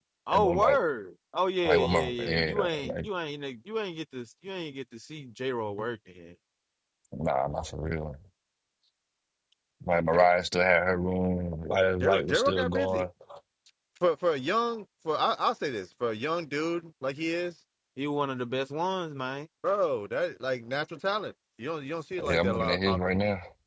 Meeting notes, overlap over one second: present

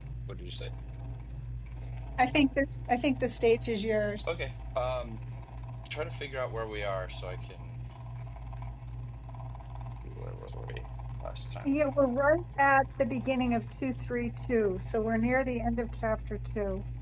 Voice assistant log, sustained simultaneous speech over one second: none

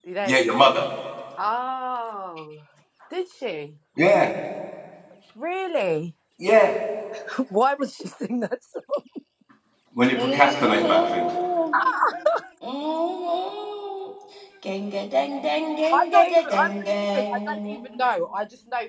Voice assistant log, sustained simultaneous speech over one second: present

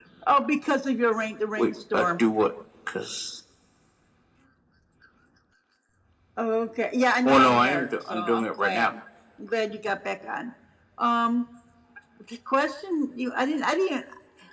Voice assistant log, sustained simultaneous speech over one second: present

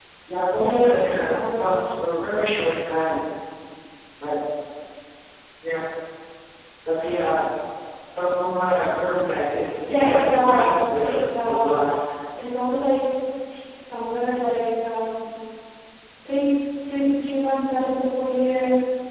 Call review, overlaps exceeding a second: present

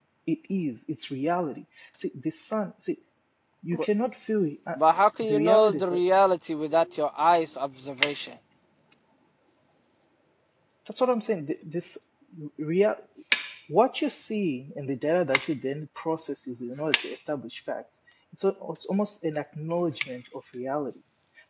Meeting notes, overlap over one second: present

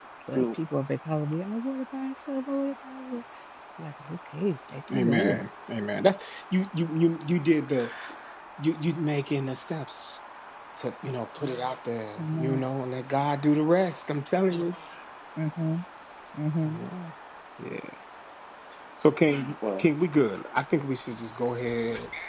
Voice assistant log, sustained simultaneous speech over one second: none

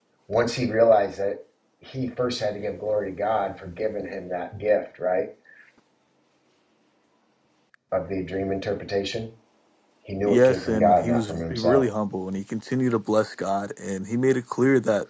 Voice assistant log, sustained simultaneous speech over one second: present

